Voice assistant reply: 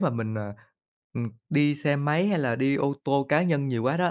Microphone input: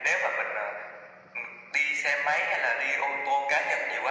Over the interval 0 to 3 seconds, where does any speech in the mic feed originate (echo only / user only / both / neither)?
echo only